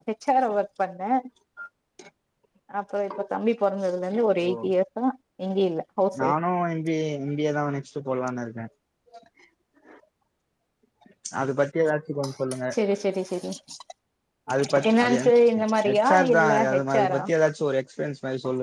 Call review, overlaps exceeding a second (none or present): present